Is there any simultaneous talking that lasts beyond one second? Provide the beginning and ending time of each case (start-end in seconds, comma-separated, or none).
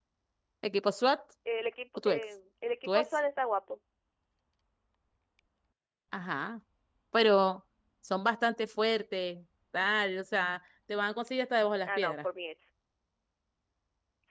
none